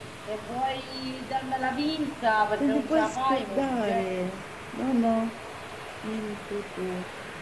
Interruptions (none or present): present